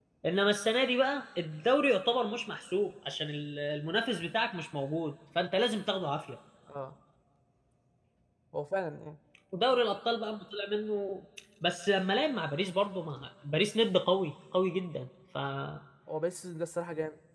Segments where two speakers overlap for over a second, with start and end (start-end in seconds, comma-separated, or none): none